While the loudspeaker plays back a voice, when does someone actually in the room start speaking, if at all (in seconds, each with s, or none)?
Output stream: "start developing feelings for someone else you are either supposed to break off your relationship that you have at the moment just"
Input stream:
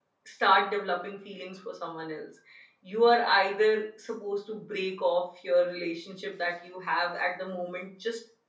none